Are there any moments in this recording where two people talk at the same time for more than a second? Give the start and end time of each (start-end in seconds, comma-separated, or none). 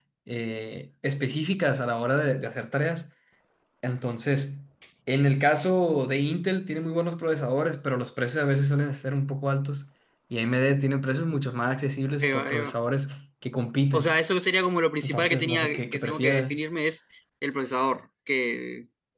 15.0-16.6